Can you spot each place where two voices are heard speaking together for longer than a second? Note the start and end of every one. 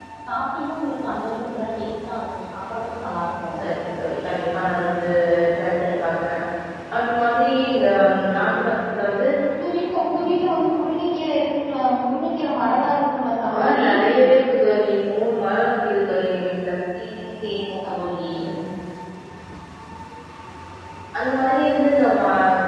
none

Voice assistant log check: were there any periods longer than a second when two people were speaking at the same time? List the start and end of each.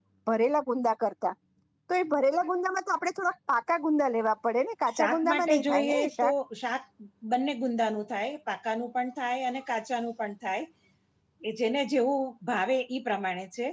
5.0-6.3

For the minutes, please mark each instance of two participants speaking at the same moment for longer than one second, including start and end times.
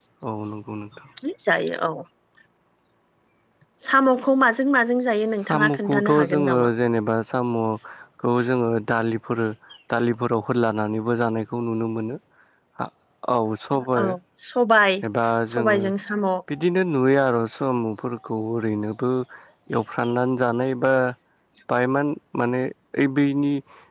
5.4-6.7

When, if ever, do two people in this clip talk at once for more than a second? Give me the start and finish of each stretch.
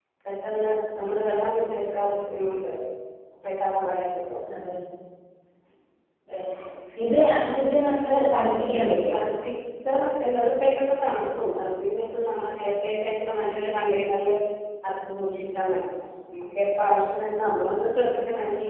none

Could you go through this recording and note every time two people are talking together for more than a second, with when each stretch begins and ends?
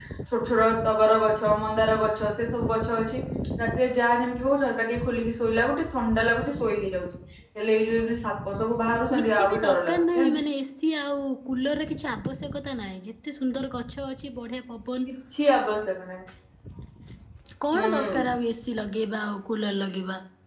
9.2-10.4

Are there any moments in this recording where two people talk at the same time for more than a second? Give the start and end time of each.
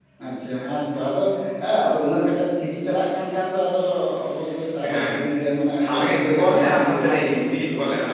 5.8-7.4

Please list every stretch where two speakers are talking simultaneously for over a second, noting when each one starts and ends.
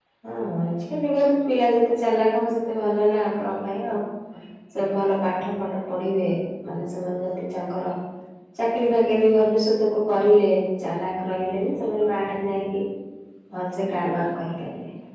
none

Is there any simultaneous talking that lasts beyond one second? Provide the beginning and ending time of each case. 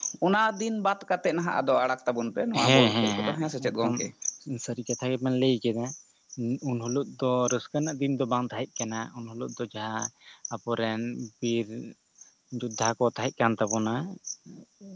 2.5-3.9

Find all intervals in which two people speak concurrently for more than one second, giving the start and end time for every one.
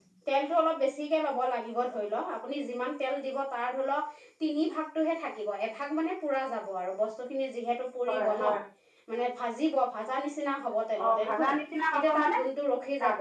none

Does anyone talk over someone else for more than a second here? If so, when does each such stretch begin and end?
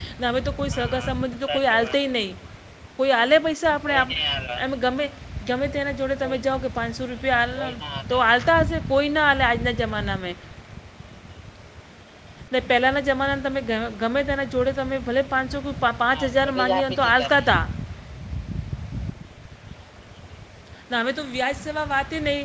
16.1-17.4

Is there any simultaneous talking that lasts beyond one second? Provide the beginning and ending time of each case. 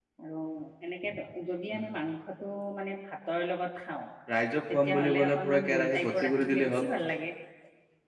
4.7-6.8

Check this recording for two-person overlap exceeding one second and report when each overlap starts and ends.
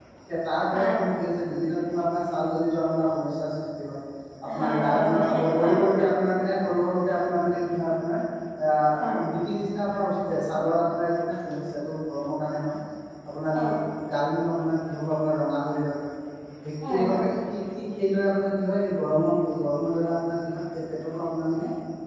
4.6-6.0

